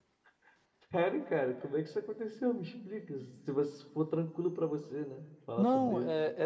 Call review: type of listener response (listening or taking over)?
taking over